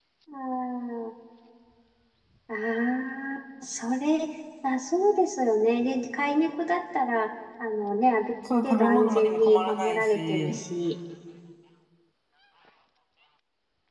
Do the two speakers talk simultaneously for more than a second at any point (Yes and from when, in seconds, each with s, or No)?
Yes, from 8.4 s